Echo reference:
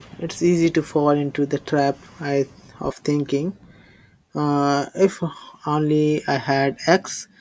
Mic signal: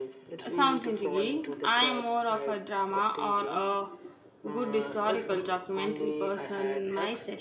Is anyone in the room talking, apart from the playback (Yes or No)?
Yes